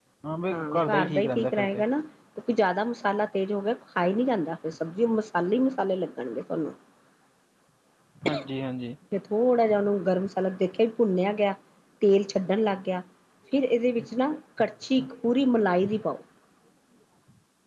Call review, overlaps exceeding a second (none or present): present